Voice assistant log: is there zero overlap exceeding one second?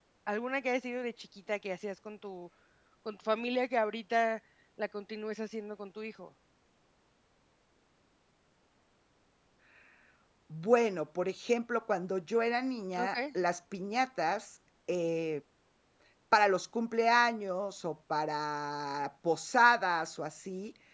Yes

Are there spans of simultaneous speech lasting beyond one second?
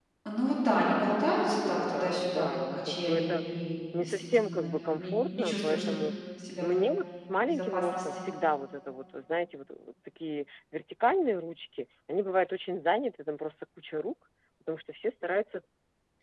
Yes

